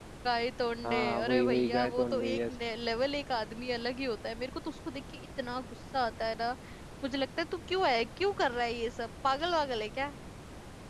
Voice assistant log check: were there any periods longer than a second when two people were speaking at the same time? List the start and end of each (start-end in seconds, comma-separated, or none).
0.9-2.5